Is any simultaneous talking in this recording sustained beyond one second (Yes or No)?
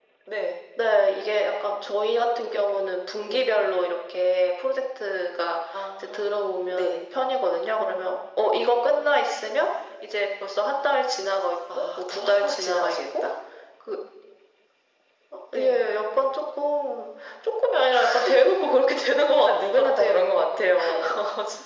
Yes